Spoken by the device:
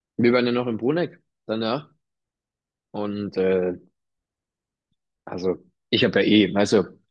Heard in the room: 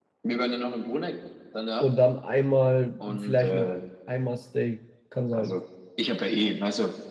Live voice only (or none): und dann einmal, vielleicht noch einmal Steak. Kann sein.